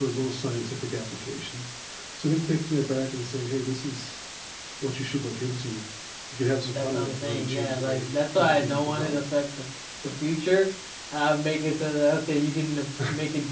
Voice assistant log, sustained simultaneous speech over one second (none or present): present